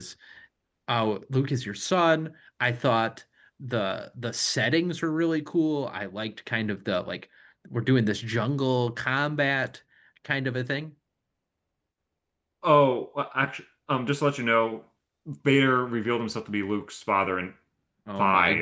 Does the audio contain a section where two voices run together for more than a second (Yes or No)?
No